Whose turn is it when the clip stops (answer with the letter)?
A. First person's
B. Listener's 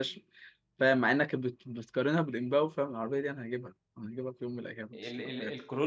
B